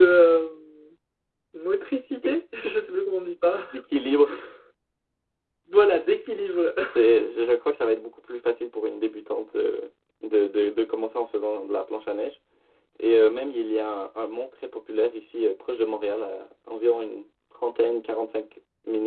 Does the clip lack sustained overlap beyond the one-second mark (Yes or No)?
Yes